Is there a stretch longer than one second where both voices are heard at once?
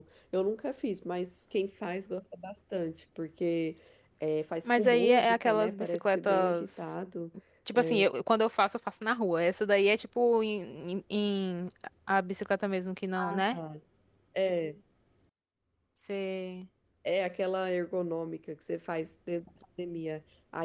Yes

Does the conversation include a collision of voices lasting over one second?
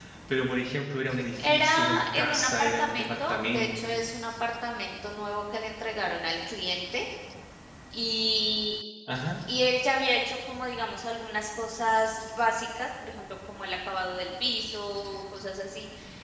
Yes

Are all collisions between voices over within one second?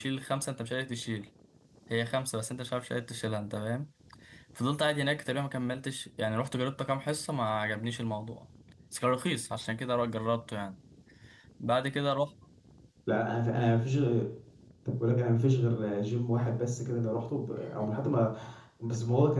Yes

